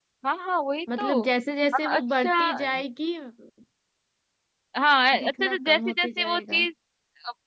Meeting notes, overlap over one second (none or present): present